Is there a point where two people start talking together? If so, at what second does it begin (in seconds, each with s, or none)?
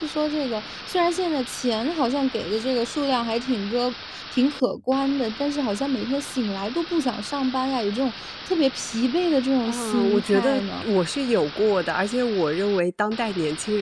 9.6 s